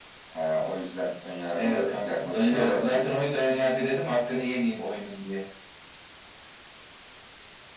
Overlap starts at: 1.6 s

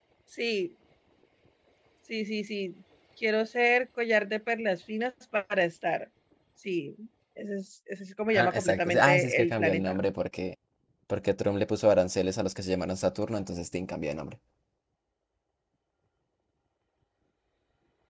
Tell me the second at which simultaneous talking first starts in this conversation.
8.3 s

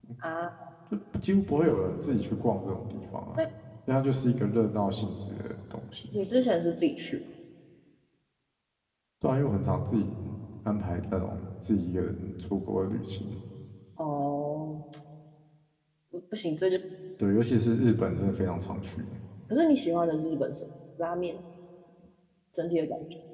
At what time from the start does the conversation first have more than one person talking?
none

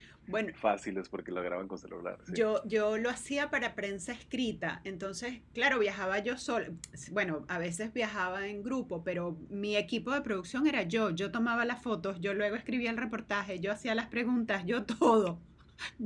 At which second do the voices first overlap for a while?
none

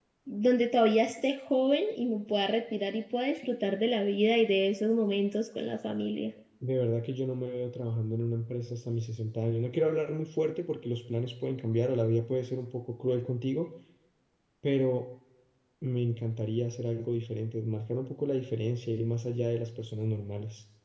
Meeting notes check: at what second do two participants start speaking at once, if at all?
none

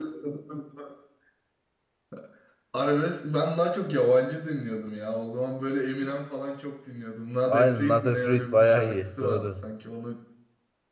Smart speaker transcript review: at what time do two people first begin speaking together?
7.5 s

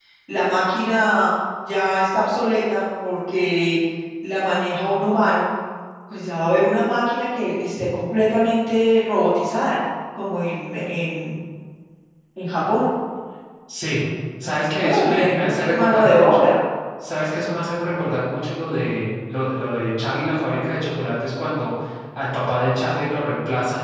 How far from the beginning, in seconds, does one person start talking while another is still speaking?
14.6 s

